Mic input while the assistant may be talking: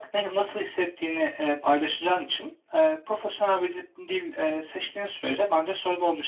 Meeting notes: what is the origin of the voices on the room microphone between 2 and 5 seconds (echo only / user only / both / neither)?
echo only